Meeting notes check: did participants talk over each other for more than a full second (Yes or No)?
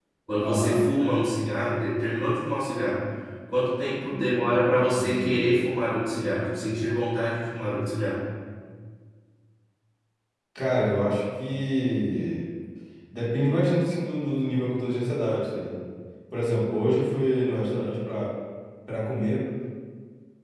No